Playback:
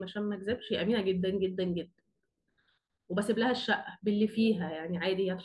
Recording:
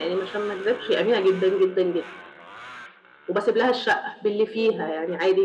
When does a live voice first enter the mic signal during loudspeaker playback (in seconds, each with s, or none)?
none